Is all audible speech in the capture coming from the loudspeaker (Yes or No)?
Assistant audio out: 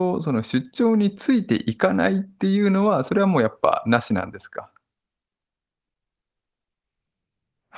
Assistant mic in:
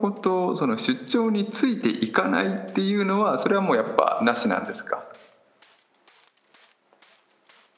Yes